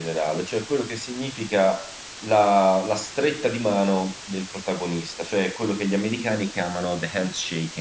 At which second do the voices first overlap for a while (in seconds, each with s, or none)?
none